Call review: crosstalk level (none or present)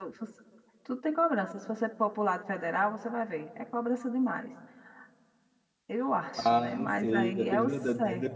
present